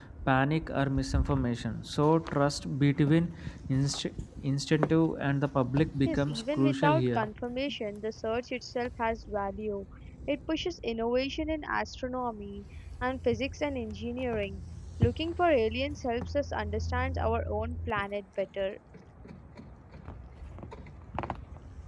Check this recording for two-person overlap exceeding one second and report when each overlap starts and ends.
6.0-7.3

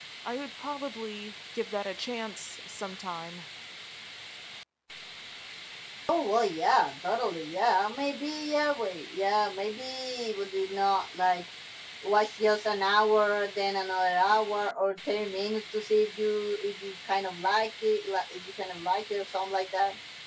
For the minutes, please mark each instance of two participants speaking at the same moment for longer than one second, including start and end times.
none

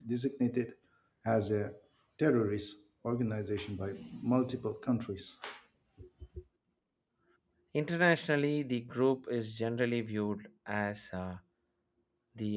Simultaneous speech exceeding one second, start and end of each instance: none

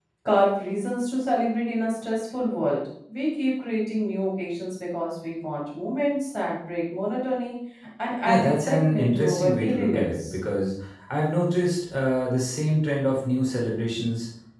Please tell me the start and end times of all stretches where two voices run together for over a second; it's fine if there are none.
8.3-10.4

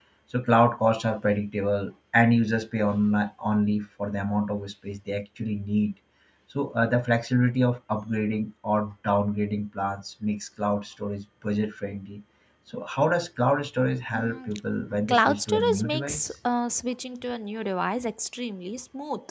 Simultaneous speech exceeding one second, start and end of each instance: 15.1-16.3

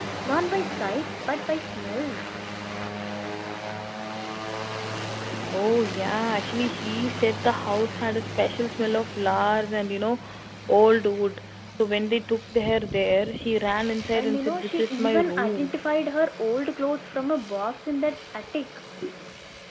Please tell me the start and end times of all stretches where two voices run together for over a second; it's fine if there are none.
14.1-15.7

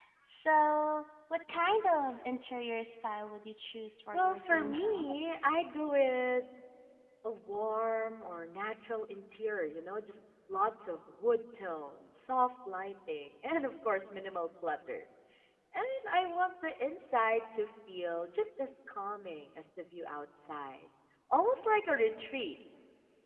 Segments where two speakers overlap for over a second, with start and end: 4.1-5.3

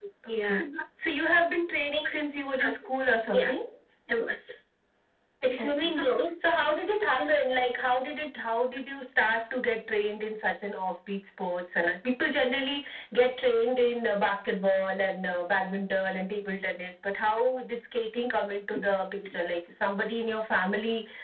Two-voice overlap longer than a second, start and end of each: none

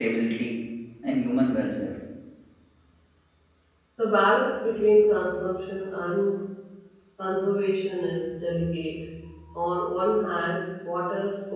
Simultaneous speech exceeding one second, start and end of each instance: none

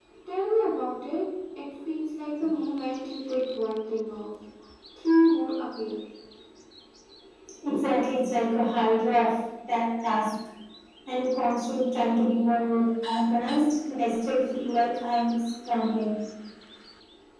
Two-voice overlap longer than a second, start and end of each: none

